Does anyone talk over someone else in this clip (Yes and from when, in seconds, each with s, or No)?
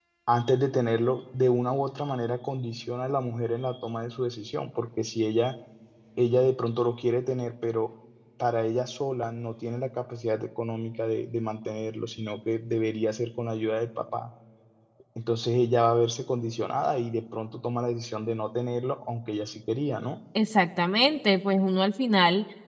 No